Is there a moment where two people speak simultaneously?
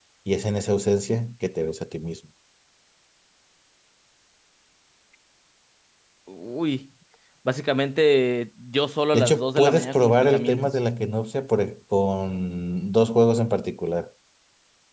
Yes, from 9.1 s

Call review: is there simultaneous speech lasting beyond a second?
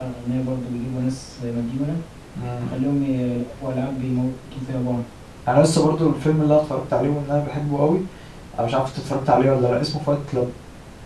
No

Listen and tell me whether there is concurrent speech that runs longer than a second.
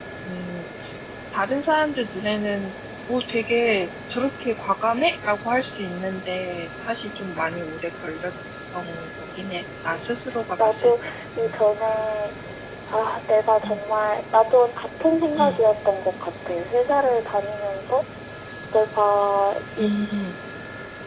Yes, from 9.9 s

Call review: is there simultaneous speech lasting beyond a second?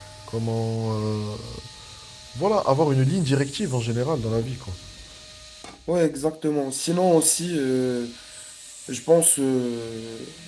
No

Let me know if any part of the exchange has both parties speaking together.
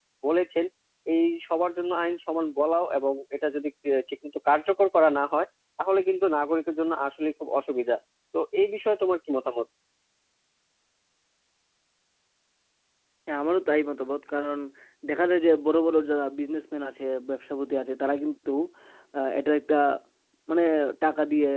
No

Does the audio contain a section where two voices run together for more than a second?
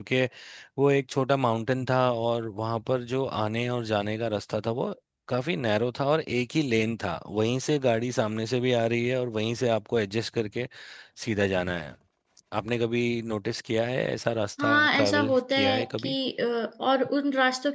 Yes, from 14.6 s

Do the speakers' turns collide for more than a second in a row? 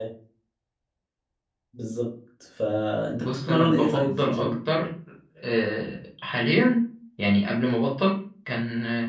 Yes, from 3.2 s

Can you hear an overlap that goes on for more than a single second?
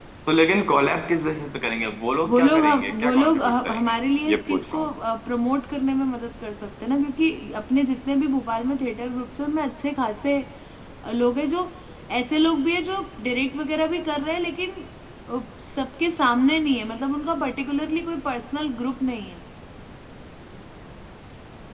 Yes, from 2.3 s

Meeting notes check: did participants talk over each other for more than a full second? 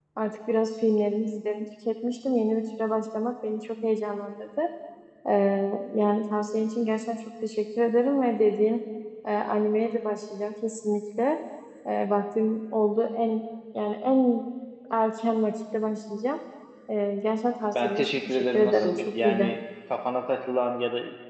Yes, from 17.8 s

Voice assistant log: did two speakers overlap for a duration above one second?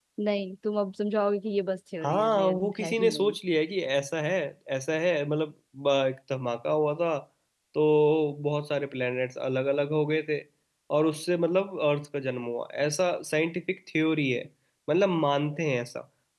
Yes, from 2.0 s

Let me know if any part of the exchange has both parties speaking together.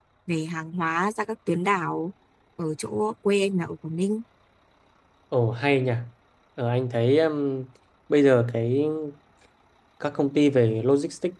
No

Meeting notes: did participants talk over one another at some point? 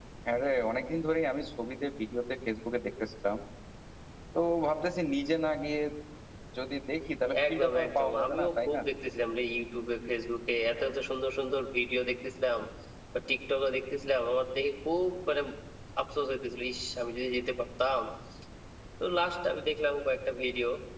Yes, from 7.3 s

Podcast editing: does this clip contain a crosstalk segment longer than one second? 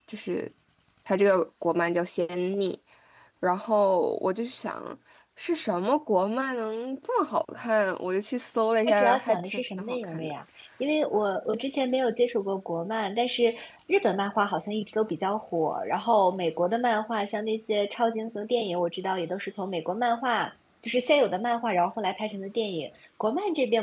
Yes, from 8.8 s

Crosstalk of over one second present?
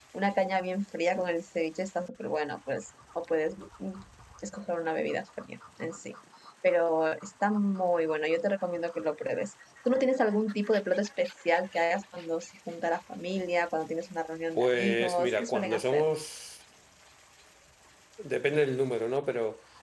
Yes, from 14.6 s

